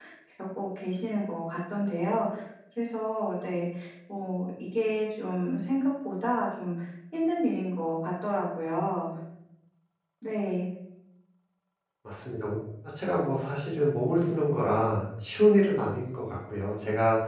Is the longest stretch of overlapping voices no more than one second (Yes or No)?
Yes